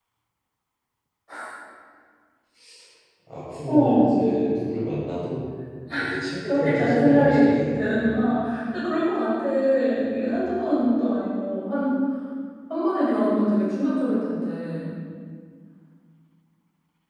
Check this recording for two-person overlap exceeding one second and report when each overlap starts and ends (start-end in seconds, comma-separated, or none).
6.4-8.1